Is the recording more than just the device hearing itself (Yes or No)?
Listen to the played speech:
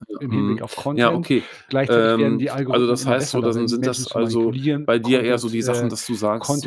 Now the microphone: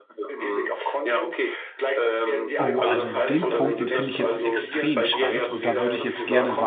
Yes